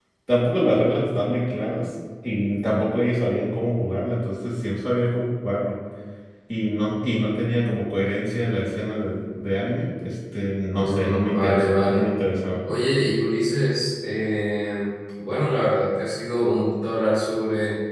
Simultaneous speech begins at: 10.8 s

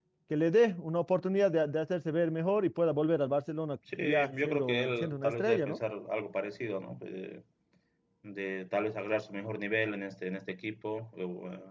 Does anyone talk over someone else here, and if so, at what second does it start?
3.9 s

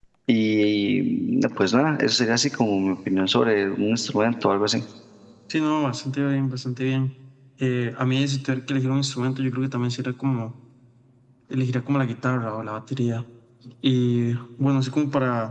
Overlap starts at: none

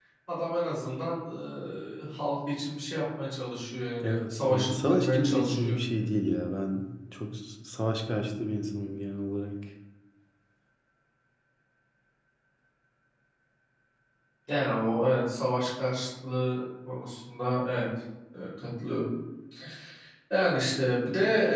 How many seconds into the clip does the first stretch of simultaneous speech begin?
4.0 s

